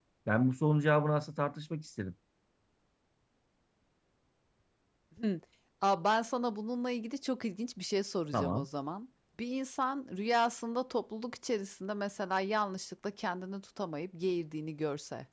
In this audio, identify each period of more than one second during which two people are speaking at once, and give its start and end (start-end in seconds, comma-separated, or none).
none